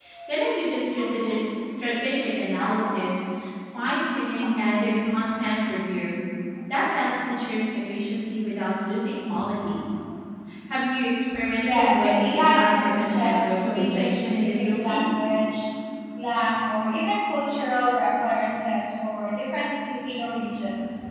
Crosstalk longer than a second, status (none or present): present